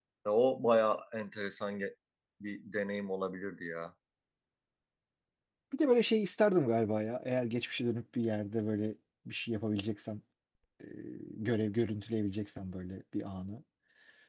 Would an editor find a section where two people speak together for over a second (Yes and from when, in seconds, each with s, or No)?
No